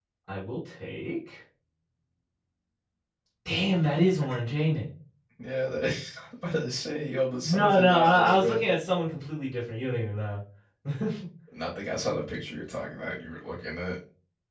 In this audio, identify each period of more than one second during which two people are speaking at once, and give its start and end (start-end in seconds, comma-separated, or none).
7.4-8.6